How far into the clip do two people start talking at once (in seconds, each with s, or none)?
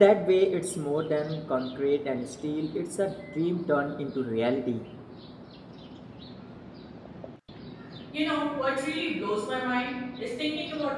none